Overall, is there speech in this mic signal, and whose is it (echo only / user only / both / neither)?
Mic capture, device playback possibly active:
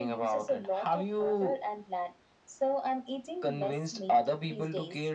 echo only